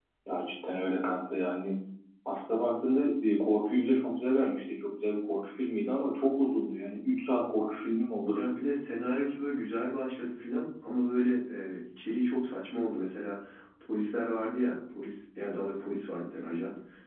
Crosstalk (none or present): none